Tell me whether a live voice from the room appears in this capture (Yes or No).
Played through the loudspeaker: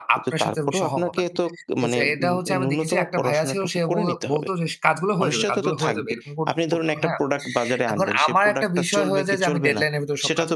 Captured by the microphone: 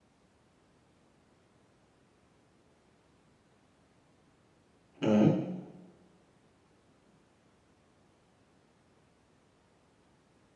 Yes